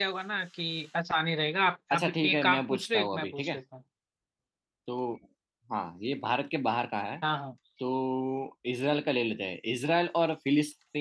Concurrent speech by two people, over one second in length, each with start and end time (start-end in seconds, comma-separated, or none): 1.9-3.5